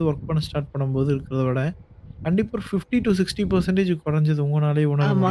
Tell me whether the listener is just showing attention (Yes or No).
No